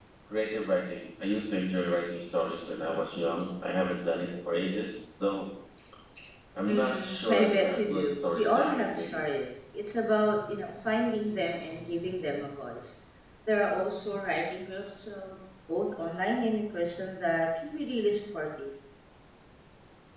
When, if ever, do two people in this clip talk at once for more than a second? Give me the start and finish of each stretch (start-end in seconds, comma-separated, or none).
6.7-9.1